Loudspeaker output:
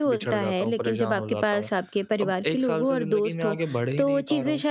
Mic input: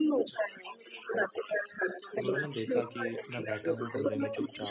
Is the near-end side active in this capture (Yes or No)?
Yes